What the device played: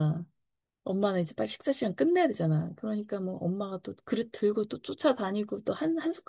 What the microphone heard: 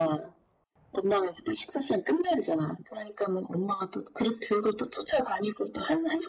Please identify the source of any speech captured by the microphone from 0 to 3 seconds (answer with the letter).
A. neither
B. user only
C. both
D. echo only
D